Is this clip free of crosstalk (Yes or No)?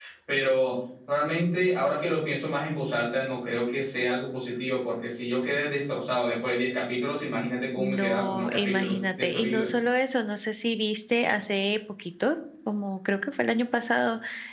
No